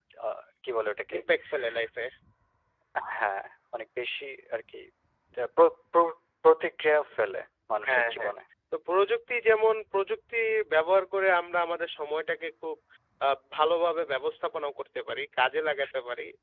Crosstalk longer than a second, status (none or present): none